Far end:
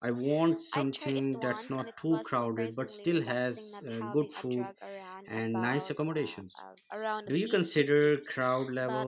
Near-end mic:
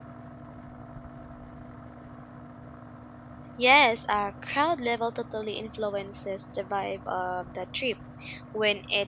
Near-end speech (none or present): present